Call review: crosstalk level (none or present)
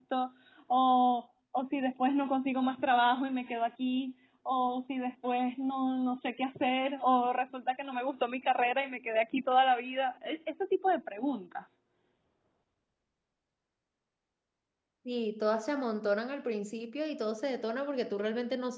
none